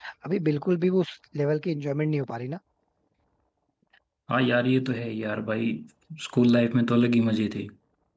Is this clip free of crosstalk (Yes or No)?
Yes